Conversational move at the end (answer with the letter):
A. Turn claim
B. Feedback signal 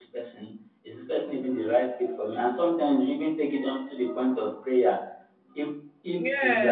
B